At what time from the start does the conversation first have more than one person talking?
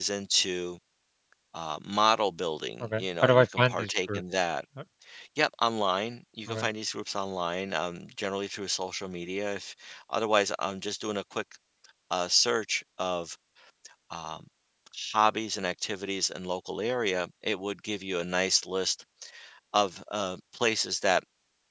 3 s

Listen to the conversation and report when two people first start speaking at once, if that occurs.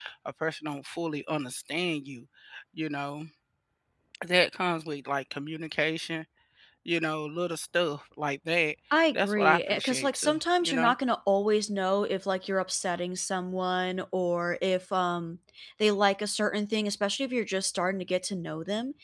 9 s

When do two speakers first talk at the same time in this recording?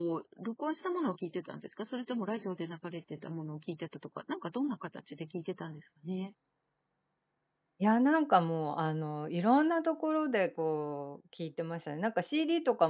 none

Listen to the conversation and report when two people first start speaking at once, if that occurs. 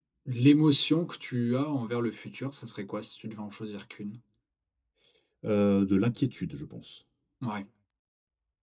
none

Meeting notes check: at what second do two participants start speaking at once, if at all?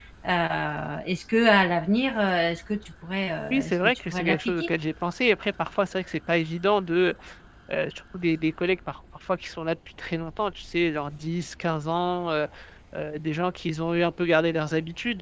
4 s

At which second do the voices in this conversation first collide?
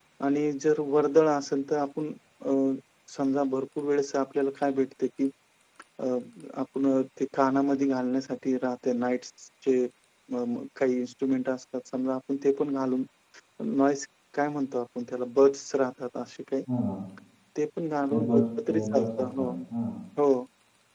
18 s

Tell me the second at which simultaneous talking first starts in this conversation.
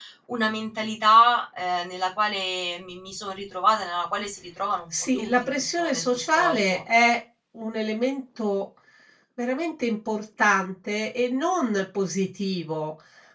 5 s

